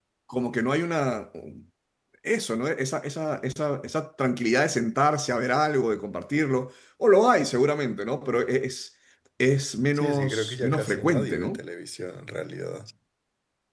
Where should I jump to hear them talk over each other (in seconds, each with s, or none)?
10.0 s